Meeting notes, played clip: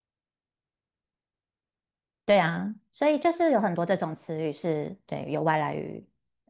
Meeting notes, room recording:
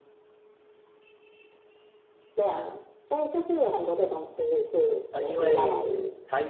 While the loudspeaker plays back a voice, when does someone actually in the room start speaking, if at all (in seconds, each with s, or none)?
5.1 s